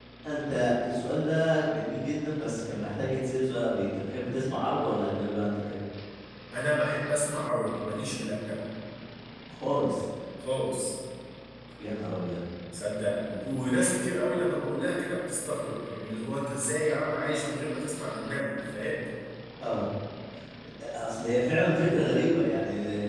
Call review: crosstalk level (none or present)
none